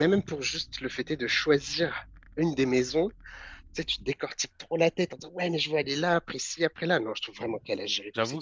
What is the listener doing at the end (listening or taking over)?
taking over